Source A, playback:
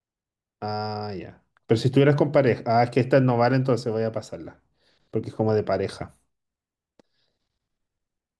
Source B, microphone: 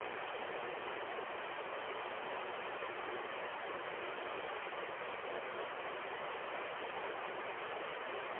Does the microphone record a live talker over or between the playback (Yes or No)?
No